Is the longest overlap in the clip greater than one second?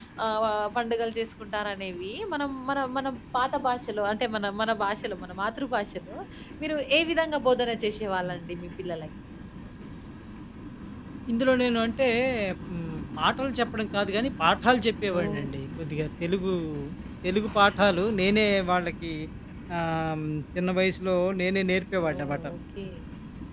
No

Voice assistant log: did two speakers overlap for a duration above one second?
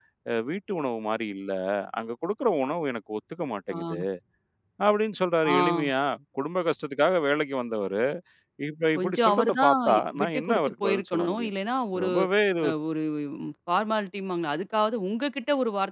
Yes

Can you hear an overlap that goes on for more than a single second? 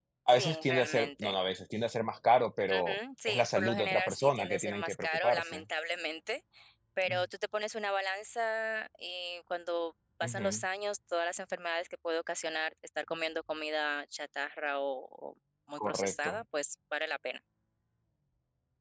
Yes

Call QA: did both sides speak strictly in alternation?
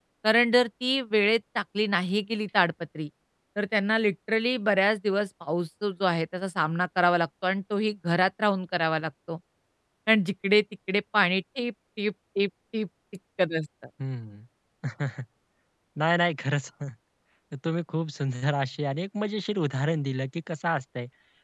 Yes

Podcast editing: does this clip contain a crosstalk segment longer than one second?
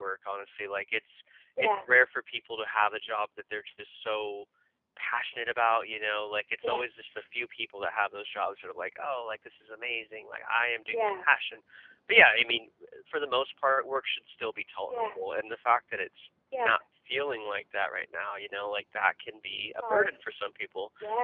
No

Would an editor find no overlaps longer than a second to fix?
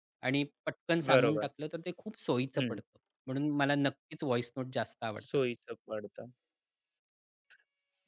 Yes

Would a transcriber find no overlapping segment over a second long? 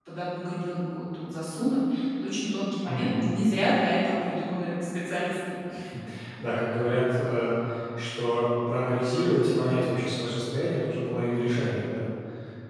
Yes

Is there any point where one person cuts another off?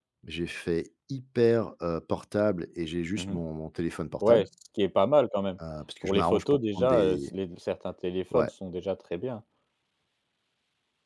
Yes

